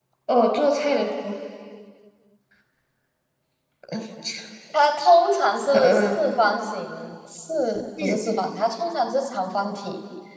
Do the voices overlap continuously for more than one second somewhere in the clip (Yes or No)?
No